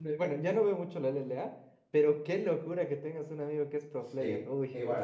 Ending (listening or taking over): taking over